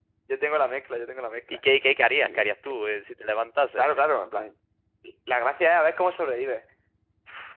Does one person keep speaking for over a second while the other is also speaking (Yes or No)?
No